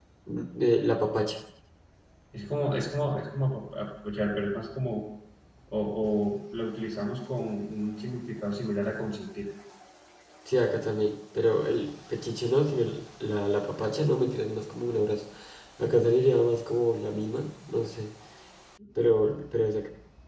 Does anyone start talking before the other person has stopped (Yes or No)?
No